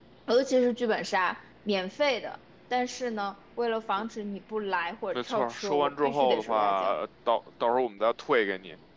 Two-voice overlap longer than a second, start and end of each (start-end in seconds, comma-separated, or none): 5.1-6.9